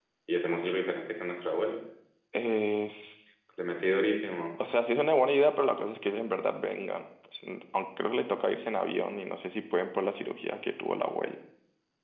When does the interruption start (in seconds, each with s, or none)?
none